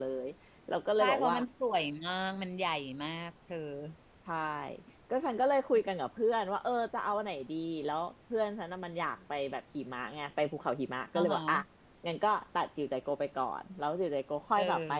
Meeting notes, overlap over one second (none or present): none